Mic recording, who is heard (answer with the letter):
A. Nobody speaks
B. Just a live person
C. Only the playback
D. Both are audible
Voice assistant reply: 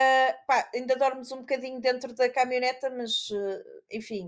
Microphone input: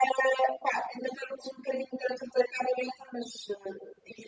C